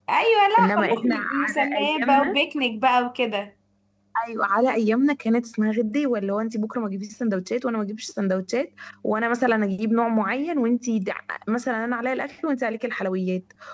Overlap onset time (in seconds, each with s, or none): 0.6 s